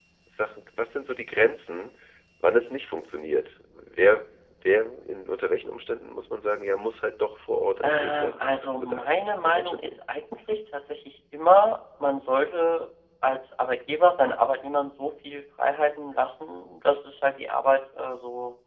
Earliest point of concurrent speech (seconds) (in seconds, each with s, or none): 7.8 s